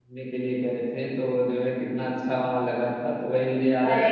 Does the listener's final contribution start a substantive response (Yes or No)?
No